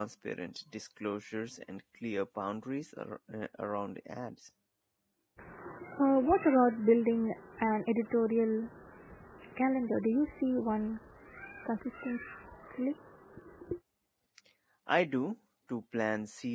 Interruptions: none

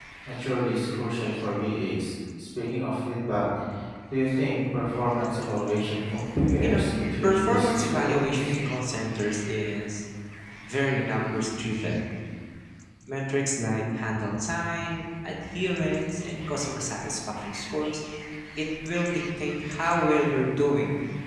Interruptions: present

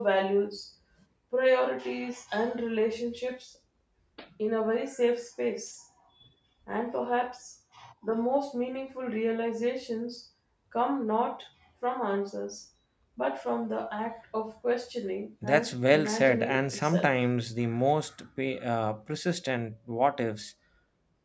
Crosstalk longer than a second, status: present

